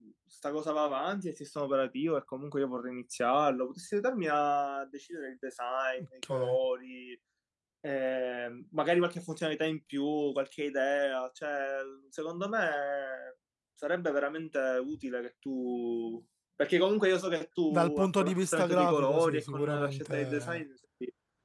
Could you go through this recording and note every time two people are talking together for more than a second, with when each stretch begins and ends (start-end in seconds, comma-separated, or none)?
17.7-20.6